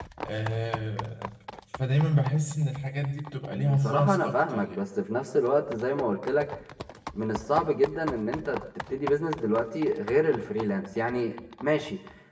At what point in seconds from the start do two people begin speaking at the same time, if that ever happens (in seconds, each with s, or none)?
3.5 s